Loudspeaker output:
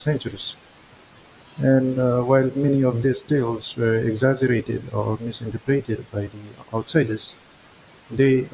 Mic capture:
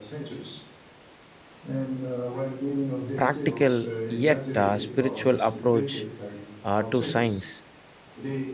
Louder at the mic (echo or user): user